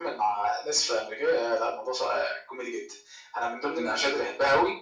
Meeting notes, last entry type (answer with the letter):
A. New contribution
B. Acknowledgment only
B